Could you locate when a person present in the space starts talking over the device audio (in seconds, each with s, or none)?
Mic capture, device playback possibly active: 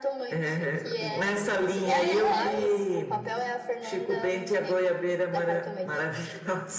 1.9 s